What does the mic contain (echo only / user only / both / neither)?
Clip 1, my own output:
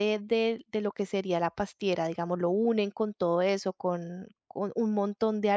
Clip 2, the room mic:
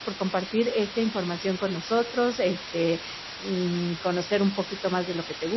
user only